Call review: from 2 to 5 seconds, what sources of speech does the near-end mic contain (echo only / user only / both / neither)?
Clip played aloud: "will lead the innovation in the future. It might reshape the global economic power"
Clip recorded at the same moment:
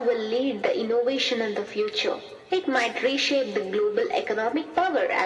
echo only